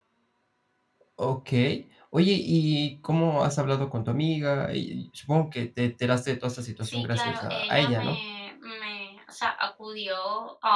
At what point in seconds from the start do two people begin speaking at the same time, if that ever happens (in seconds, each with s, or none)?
6.8 s